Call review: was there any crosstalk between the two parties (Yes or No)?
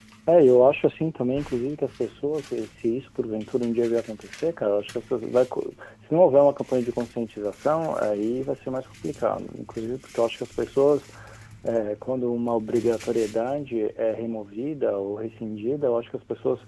No